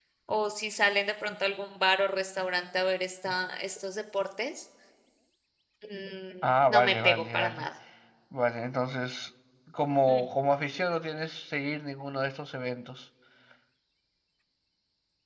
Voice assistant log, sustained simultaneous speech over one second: present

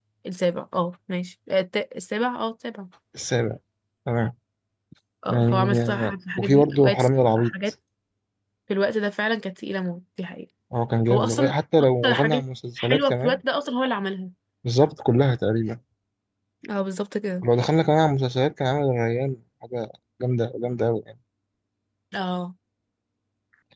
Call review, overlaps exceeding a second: present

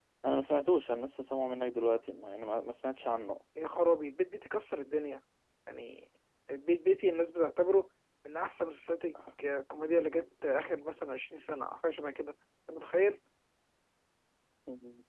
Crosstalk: none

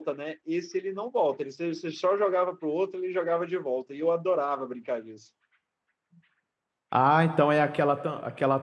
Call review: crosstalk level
none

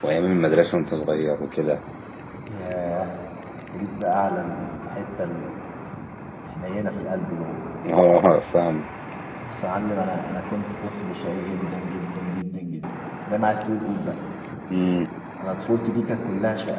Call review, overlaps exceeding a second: none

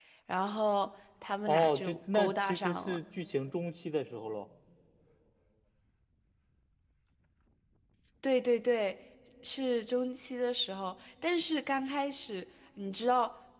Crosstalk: present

